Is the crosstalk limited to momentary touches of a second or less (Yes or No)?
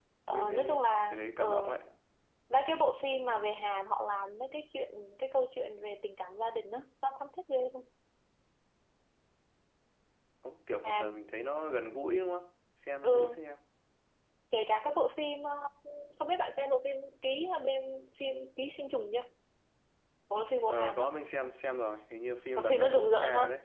No